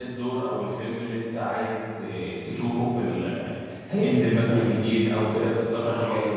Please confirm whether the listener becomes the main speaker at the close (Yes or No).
Yes